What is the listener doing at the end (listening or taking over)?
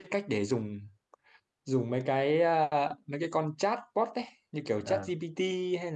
listening